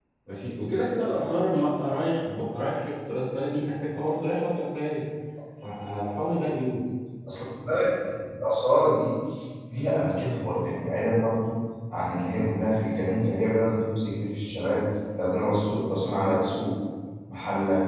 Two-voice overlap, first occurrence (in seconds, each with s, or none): none